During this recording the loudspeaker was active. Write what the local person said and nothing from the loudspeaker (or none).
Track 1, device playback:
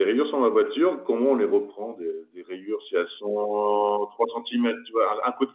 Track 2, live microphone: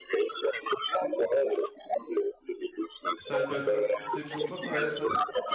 Ça, bah ça, c'est toujours pas. ouais, ça,